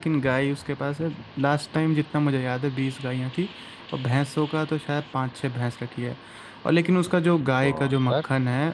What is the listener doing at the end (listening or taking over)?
listening